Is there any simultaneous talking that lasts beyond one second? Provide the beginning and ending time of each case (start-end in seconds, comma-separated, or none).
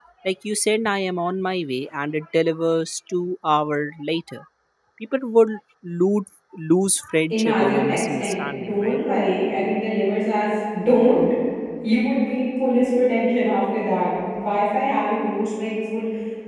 7.3-9.0